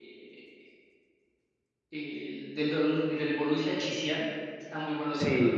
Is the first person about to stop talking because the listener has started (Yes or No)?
Yes